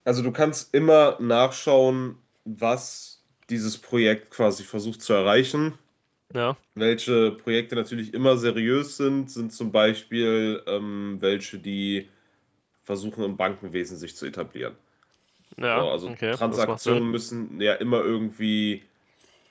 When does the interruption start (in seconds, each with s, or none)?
15.7 s